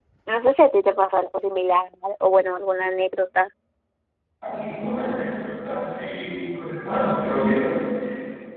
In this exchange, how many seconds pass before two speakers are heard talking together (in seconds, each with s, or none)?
none